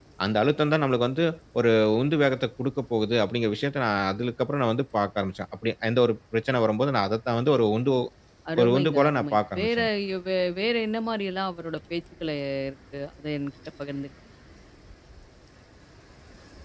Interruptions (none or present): present